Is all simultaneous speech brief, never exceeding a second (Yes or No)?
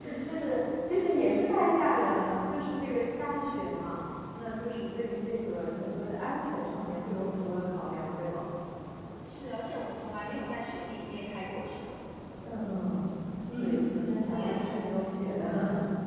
No